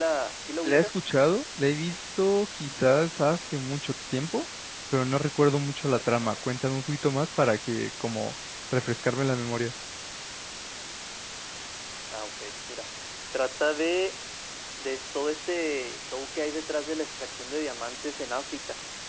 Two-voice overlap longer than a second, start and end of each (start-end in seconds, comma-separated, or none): none